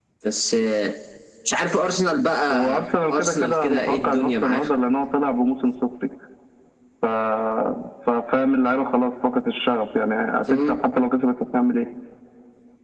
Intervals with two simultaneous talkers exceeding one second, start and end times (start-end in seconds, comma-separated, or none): 2.5-4.6